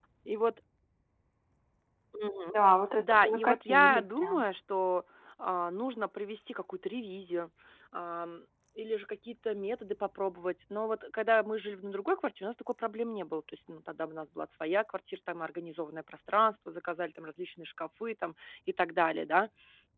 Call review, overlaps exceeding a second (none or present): present